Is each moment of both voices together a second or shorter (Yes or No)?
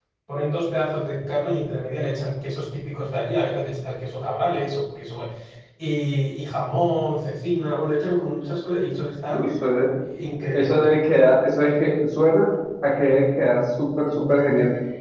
Yes